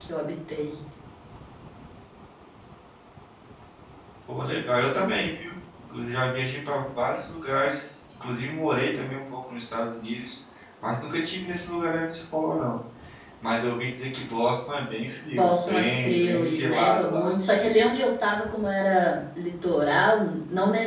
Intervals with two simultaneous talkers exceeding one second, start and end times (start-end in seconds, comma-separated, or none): 15.3-17.3